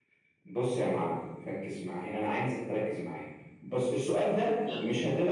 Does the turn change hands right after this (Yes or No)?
No